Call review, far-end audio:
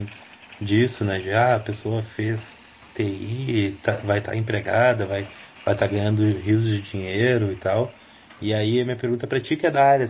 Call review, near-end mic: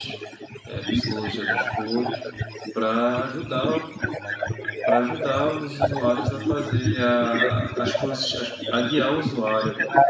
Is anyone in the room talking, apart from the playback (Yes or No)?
Yes